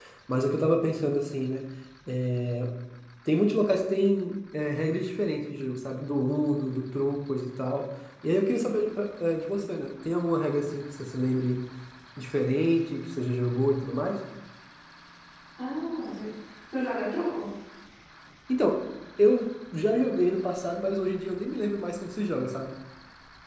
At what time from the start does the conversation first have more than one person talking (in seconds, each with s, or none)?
none